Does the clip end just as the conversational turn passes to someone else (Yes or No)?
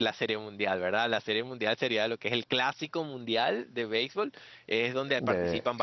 No